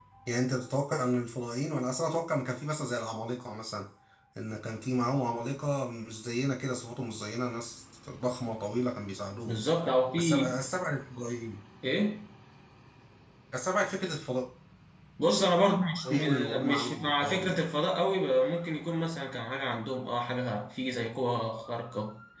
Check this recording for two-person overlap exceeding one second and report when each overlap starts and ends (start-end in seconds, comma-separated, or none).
16.0-17.7